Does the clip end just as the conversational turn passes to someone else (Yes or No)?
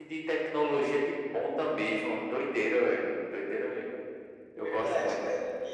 Yes